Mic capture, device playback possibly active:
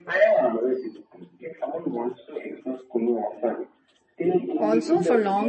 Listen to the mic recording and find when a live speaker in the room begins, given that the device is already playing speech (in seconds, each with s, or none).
4.6 s